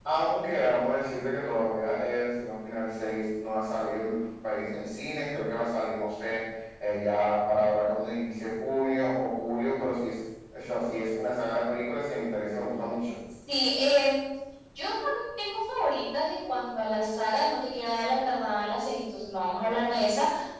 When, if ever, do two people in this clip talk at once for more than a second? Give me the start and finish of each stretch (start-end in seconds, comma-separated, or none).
none